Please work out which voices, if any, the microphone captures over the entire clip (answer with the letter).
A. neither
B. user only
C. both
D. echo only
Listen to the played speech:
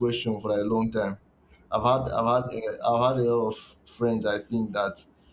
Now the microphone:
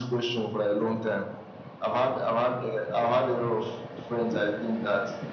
D